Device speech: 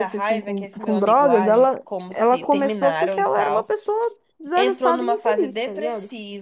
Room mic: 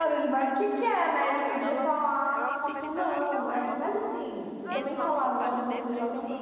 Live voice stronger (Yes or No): Yes